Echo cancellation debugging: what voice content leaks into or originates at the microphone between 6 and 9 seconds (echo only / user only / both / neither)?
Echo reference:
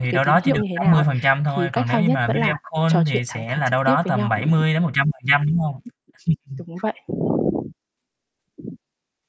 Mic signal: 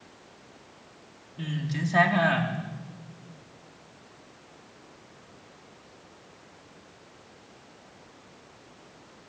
neither